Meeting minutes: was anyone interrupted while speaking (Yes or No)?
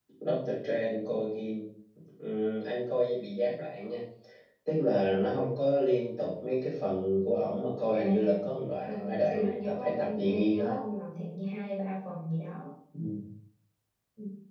Yes